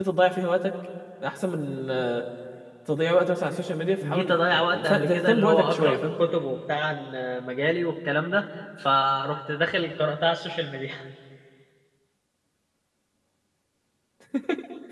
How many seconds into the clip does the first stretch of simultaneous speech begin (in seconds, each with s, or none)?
4.0 s